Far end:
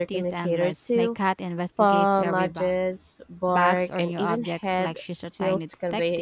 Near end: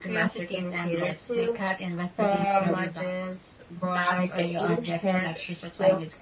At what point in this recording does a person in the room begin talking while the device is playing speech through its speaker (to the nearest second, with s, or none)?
none